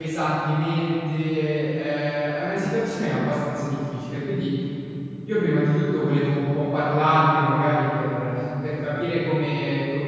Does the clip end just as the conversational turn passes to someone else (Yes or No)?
No